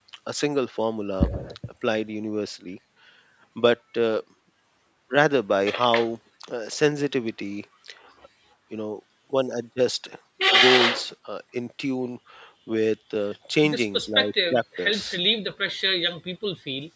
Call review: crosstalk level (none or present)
present